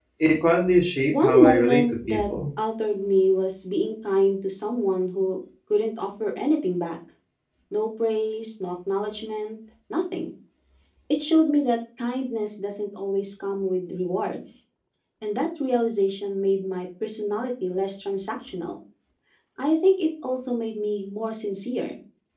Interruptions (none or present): present